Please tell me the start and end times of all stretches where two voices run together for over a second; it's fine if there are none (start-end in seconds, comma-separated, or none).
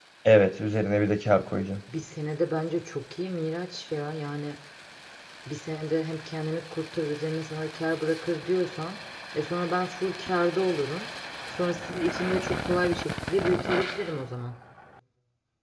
none